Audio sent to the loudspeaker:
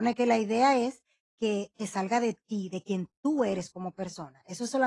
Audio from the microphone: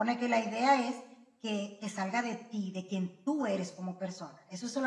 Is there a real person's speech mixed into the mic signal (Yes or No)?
No